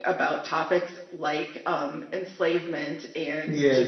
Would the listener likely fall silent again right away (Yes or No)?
Yes